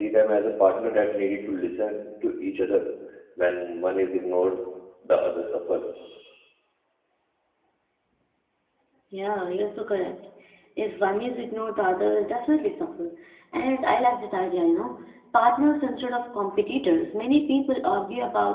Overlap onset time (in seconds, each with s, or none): none